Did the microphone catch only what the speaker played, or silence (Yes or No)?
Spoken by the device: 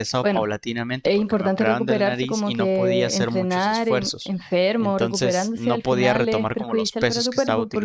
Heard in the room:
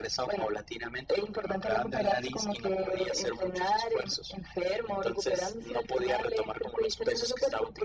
Yes